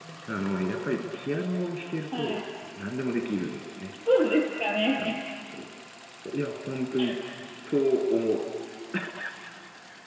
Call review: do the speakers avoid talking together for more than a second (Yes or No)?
Yes